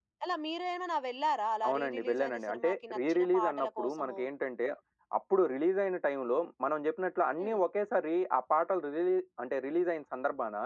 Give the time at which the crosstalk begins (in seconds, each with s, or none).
1.6 s